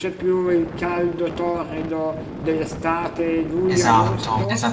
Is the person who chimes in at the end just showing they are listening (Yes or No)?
No